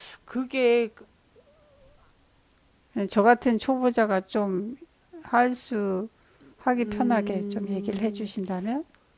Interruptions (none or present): present